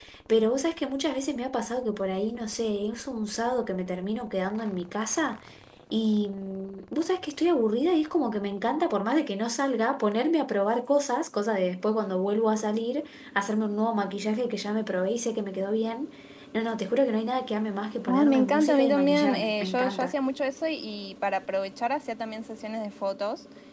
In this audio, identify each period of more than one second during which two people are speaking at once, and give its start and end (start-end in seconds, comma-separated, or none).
18.1-20.1